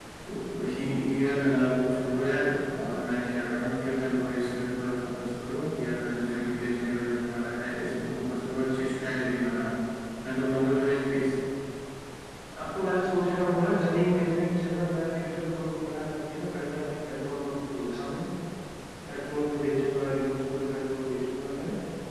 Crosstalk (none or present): none